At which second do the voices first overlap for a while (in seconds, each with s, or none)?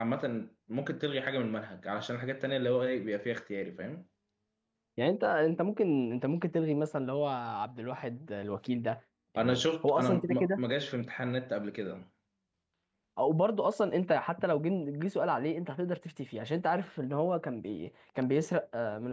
9.4 s